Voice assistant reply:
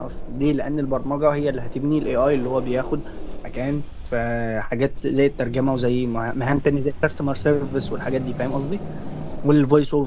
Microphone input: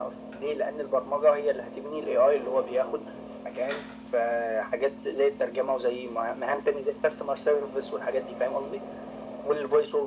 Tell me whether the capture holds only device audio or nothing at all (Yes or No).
Yes